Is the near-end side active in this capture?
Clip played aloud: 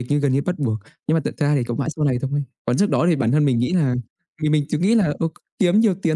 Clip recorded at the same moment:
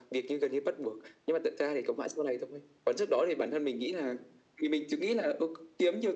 No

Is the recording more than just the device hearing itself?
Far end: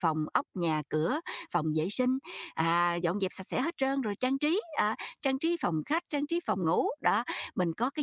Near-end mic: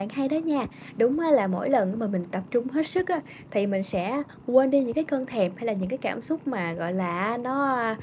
Yes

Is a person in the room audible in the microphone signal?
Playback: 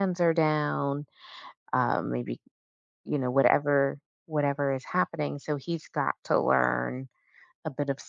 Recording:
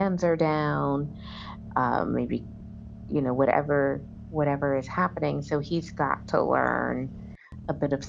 No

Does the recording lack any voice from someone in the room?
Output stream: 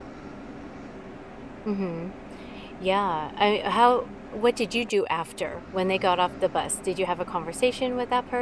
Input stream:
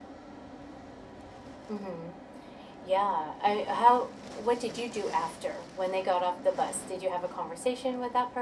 Yes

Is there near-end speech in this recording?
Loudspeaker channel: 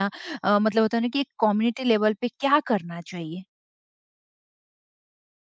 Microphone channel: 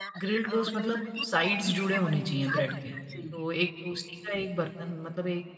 Yes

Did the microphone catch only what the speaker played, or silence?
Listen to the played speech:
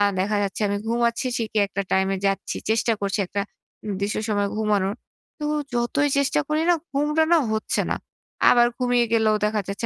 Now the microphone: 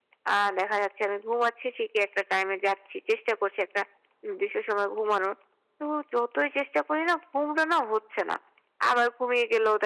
Yes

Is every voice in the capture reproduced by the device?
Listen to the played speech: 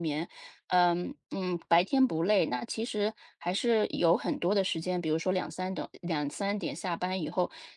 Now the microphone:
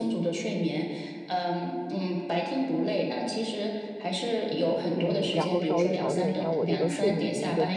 No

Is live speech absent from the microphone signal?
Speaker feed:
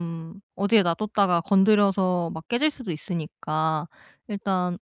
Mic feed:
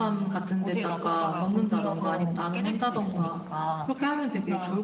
No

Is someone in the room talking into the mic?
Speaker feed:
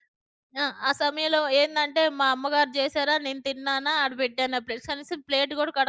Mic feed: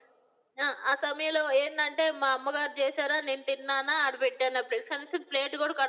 No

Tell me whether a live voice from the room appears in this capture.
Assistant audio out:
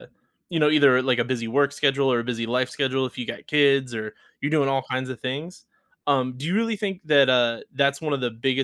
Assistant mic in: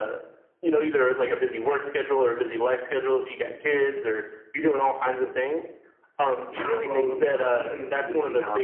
Yes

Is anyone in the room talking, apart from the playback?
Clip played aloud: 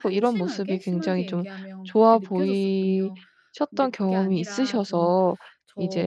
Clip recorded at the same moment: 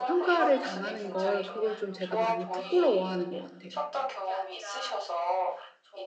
Yes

